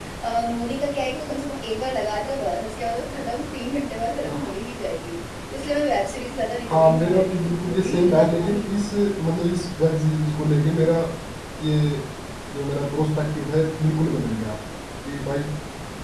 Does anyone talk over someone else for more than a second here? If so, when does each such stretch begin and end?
6.7-8.6

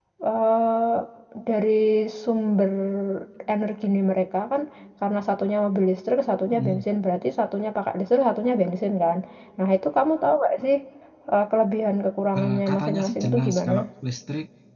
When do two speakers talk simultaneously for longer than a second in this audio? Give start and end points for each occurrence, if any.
12.4-13.8

